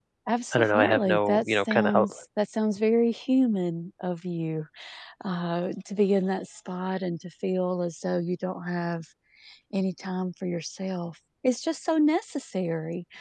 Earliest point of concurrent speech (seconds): 0.5 s

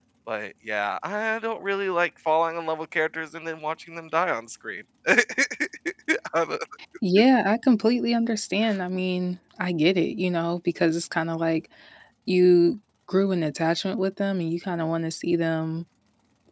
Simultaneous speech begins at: none

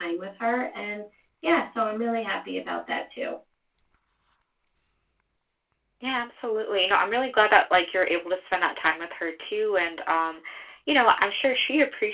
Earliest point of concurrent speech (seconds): none

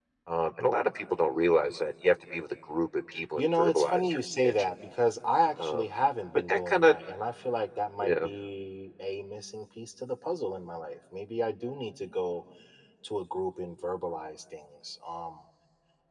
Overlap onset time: 3.4 s

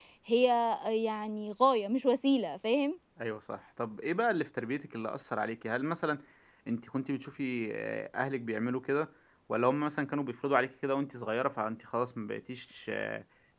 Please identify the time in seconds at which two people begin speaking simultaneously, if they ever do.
none

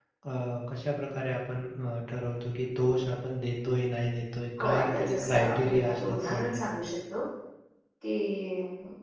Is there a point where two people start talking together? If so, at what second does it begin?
4.6 s

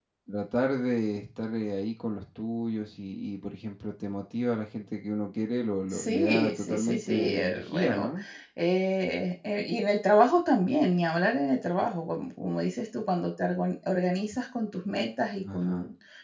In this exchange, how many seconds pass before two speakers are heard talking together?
5.9 s

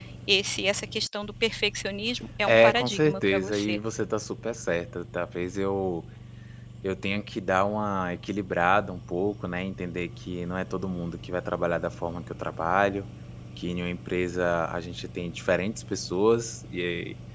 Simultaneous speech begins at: 2.5 s

